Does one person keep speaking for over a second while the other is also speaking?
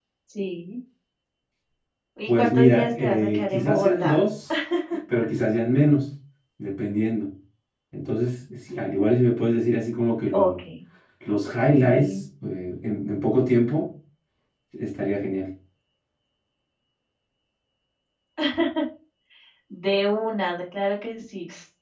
Yes, from 2.3 s

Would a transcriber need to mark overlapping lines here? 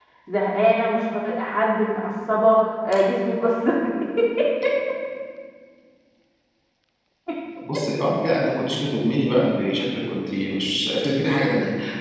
No

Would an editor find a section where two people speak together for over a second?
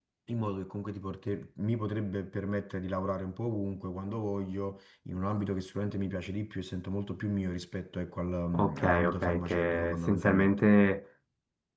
Yes, from 8.5 s

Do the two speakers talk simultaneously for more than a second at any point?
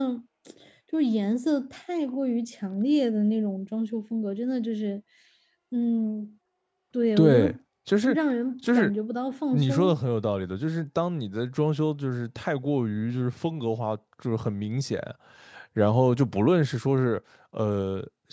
No

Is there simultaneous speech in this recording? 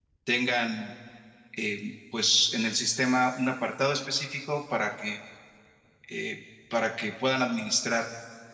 No

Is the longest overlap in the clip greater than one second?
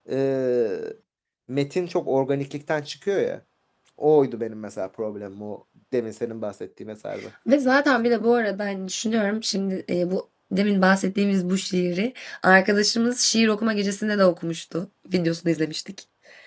No

